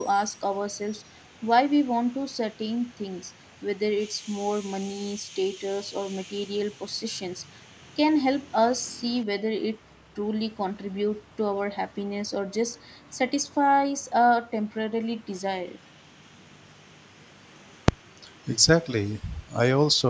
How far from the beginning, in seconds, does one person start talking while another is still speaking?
none

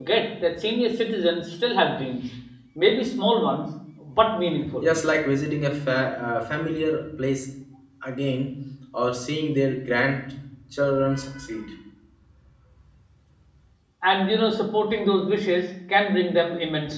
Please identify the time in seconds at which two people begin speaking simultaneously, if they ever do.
none

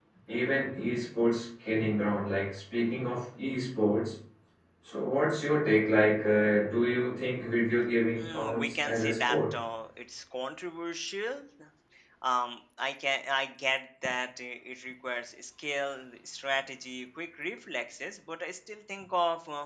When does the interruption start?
8.2 s

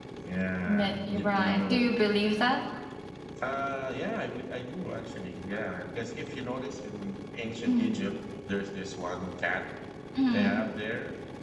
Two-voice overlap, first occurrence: 0.7 s

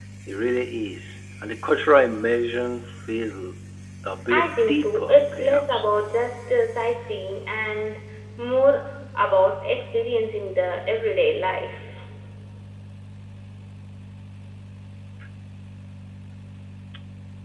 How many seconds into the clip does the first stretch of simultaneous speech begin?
4.3 s

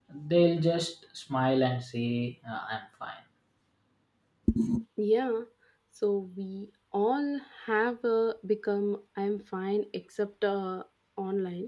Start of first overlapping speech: none

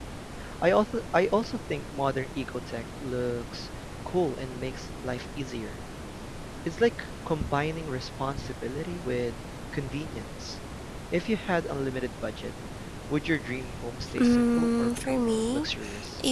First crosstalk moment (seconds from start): 14.2 s

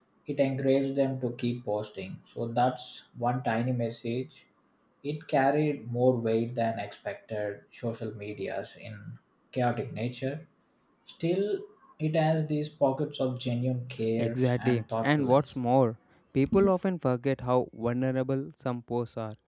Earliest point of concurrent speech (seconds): 14.2 s

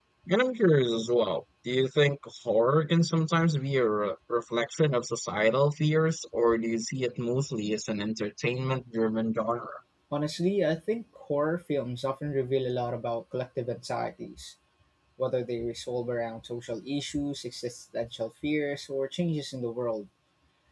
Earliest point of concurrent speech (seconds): none

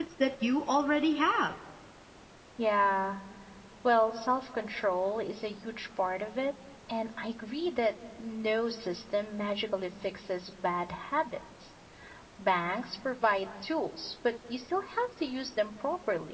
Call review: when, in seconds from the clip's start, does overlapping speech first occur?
none

